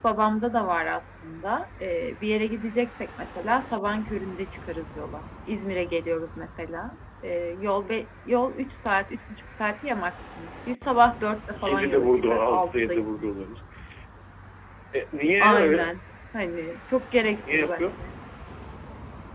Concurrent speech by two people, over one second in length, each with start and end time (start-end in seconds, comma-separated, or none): 11.7-13.3